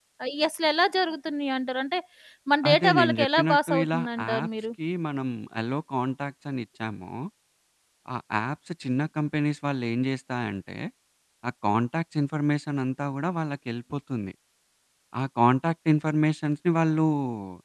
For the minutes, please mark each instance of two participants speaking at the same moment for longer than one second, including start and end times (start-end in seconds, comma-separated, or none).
2.7-4.5